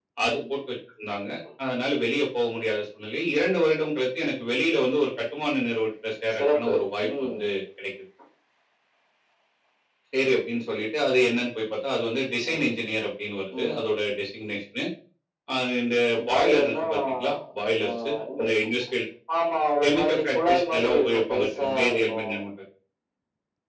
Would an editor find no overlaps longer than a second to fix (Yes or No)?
No